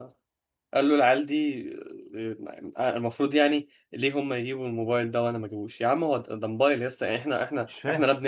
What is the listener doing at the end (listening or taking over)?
listening